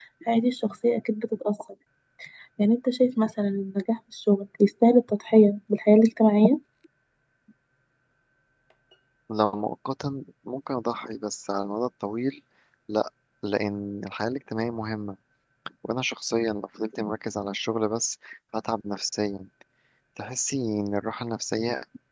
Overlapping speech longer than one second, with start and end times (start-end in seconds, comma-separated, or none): none